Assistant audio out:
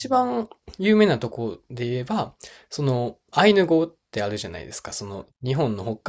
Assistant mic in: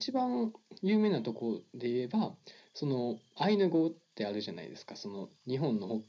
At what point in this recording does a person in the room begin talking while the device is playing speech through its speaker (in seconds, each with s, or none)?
none